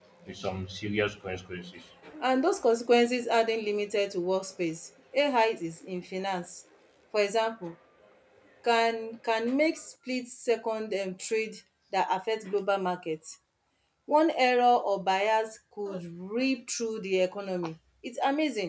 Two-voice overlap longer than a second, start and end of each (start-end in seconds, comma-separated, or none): none